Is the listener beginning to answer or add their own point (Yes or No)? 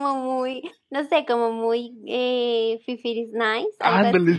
Yes